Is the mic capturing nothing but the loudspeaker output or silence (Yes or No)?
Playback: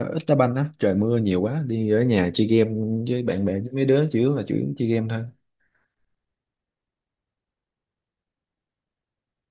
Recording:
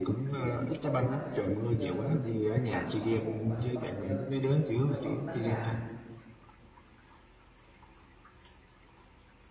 No